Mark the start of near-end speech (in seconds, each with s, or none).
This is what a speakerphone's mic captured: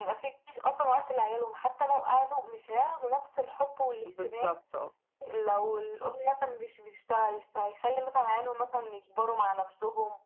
4.0 s